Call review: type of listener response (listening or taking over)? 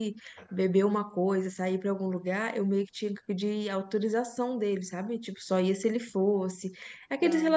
listening